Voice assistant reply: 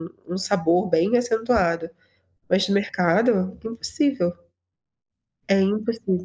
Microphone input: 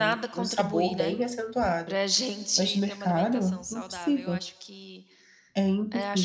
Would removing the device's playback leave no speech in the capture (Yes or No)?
No